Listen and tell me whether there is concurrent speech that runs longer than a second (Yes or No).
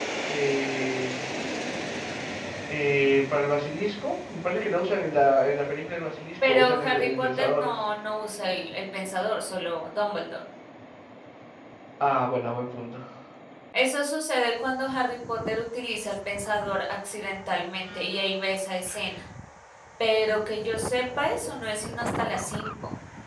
Yes